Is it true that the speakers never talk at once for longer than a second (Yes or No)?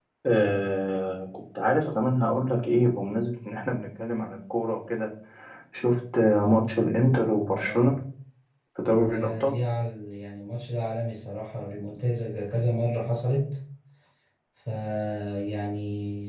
Yes